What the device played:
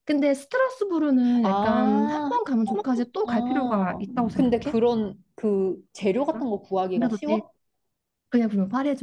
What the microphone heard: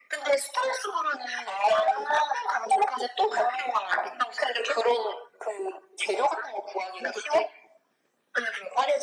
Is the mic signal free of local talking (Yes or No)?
Yes